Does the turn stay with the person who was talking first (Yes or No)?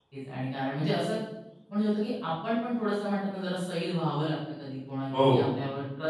Yes